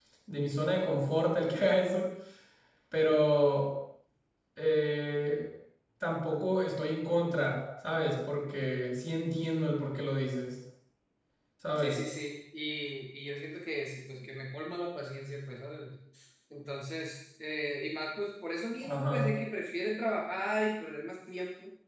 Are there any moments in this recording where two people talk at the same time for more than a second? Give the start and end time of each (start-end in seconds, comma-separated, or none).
none